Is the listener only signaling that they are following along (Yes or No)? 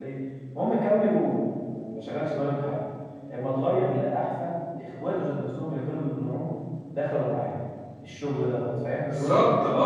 No